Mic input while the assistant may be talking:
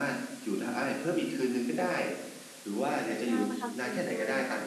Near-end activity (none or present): present